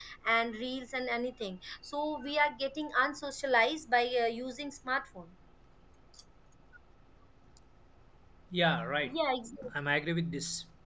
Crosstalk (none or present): none